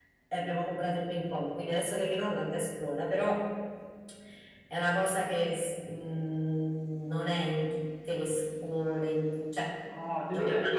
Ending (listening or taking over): taking over